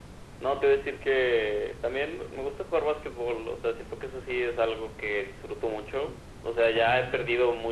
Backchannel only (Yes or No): Yes